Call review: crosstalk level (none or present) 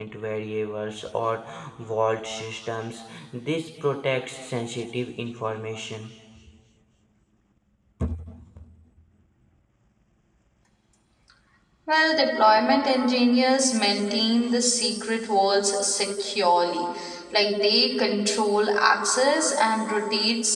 none